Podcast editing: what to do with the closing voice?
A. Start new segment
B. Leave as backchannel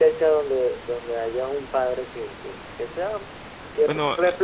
B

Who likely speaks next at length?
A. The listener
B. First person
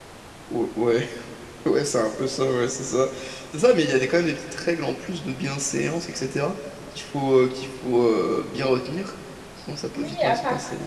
A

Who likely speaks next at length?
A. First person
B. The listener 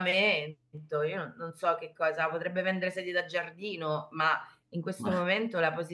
A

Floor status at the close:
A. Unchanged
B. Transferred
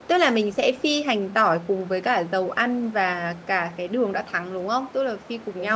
B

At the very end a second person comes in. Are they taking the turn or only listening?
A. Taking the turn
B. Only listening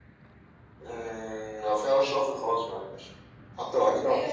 A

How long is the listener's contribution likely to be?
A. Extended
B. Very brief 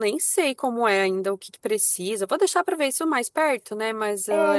A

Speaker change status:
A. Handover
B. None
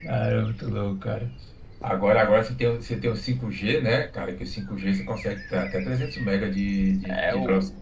A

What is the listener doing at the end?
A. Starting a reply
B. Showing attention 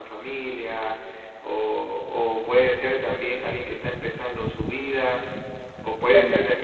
B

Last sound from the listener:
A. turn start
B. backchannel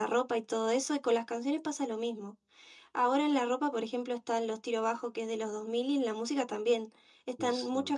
B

